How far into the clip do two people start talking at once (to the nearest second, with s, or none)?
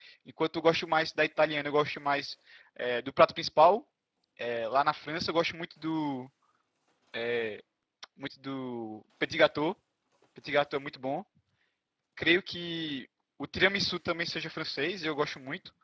none